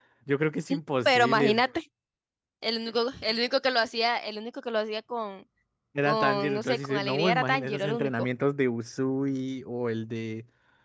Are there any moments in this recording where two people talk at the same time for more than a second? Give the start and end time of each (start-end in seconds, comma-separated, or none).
6.0-8.1